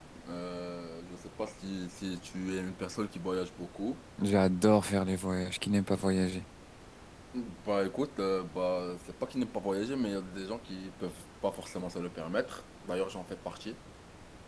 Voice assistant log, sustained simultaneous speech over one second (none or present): none